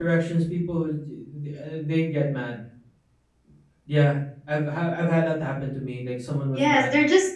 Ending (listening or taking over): taking over